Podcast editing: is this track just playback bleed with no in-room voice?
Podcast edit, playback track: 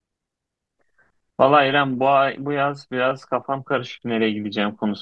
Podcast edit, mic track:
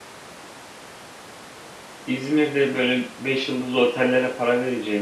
No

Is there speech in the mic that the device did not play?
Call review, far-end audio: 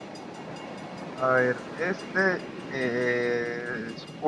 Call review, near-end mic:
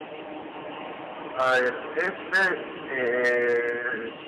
No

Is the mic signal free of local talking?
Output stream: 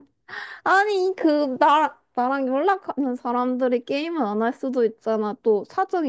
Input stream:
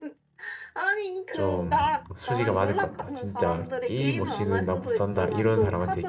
No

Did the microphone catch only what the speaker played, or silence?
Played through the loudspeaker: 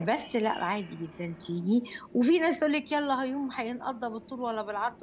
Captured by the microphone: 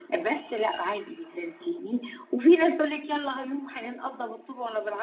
Yes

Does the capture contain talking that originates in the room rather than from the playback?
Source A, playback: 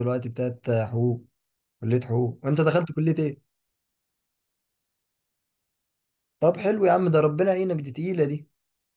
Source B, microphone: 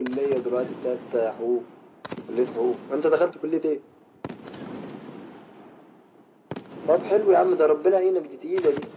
No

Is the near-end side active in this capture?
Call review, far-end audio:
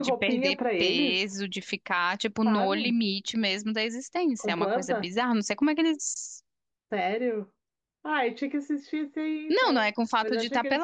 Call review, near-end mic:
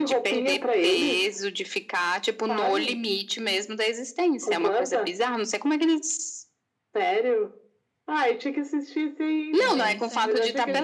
Yes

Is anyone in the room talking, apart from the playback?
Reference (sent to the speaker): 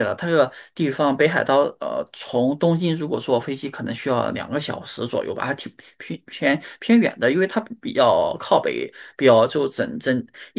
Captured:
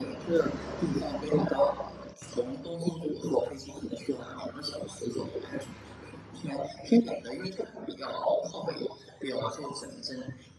No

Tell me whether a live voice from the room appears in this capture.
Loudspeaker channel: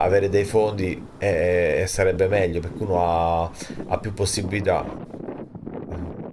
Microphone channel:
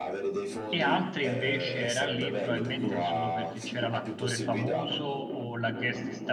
Yes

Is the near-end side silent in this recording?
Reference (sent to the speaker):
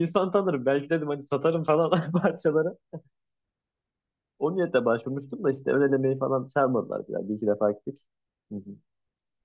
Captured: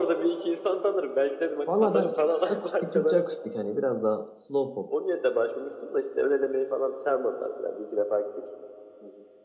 No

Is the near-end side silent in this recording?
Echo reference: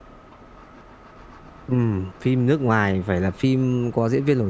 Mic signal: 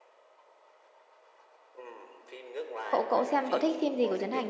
No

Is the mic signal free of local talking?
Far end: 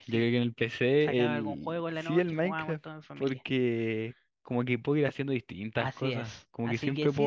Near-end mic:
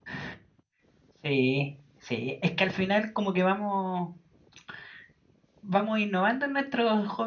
No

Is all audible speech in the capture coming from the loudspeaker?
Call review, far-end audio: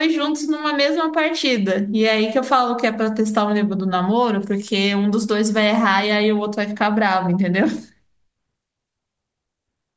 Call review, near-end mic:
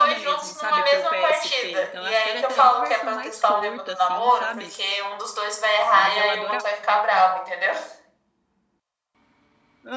No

